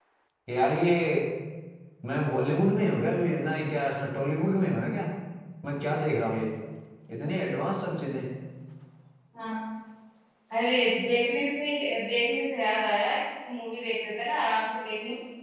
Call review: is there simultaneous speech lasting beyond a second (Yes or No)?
No